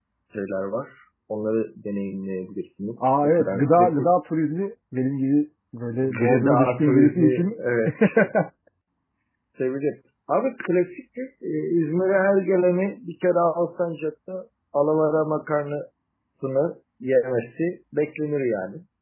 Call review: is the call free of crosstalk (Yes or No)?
No